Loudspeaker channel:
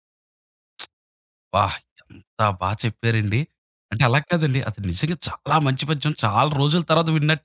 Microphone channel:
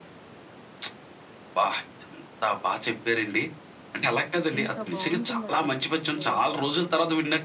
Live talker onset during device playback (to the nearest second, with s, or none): 5 s